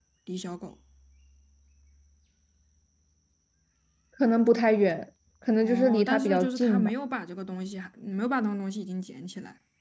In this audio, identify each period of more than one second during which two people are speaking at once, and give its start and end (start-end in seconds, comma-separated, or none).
5.6-6.9